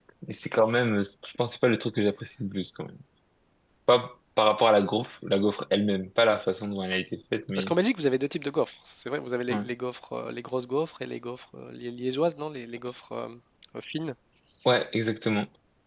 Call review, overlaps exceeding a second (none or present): none